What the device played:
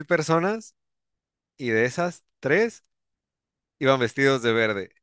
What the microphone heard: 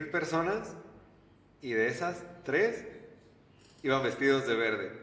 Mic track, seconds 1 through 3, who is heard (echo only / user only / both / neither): echo only